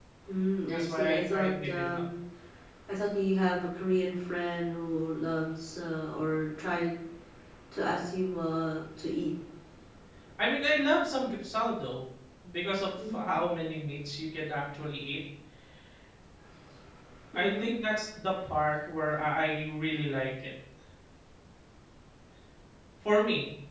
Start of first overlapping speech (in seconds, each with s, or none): 0.7 s